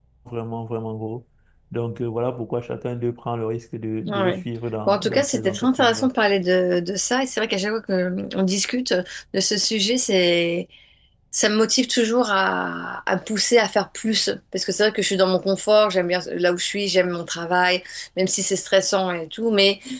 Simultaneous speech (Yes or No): Yes